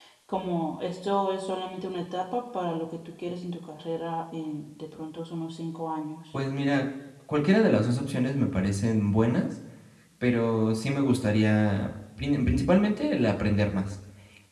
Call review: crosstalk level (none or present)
none